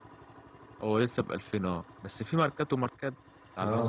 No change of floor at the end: No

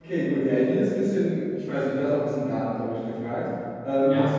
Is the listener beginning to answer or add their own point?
No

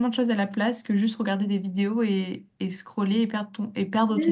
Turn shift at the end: Yes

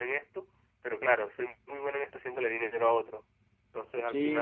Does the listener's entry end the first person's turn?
Yes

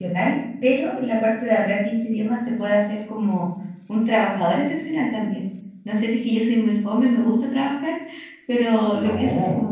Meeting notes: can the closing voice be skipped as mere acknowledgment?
Yes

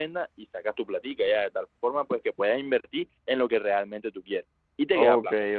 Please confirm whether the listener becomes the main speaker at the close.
Yes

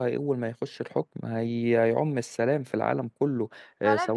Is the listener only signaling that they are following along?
No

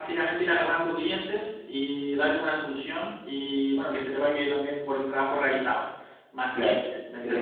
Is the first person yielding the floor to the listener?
Yes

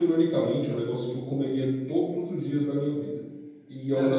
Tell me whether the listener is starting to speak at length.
No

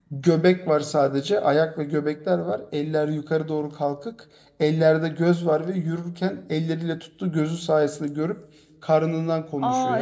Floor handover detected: Yes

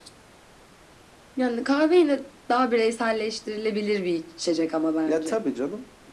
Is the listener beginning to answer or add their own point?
Yes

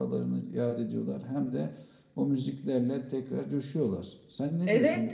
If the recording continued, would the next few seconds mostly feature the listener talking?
Yes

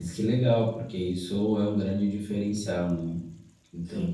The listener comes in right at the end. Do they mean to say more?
No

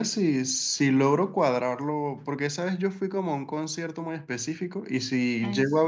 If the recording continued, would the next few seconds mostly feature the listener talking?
No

